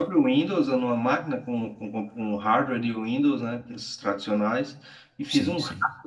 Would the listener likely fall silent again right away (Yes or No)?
Yes